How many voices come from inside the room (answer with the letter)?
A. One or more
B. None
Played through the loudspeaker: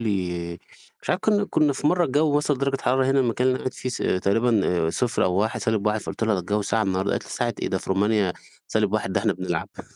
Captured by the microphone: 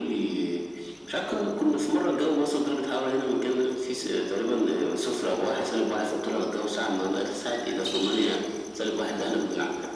B